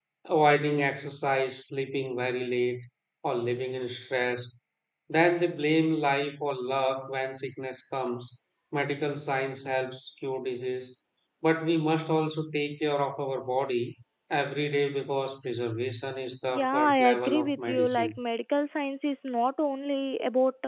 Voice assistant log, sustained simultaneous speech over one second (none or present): present